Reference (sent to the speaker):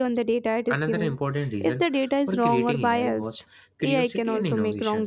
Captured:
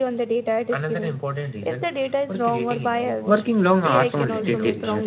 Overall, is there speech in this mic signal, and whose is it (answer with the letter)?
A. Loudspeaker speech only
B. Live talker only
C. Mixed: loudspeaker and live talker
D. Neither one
C